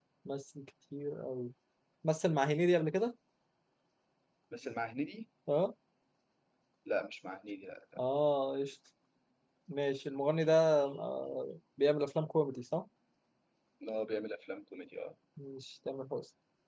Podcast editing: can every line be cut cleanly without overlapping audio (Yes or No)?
Yes